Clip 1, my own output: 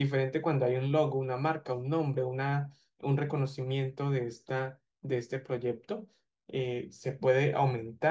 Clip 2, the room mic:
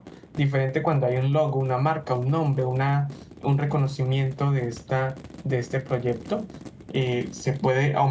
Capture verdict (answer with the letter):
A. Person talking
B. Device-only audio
B